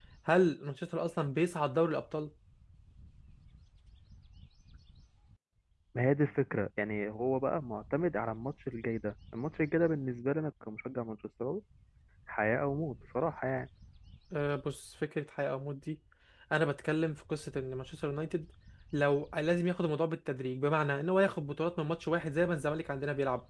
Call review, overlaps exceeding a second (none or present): none